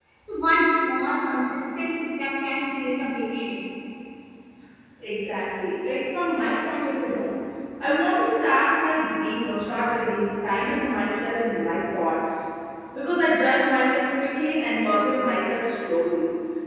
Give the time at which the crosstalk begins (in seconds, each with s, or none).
none